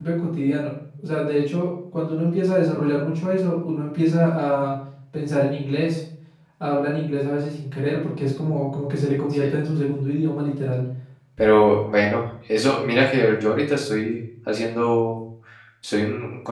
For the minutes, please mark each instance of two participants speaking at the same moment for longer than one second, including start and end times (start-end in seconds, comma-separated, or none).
none